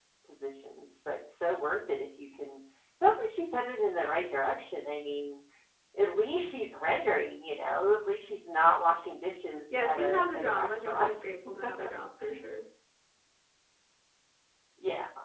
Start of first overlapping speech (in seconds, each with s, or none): 9.7 s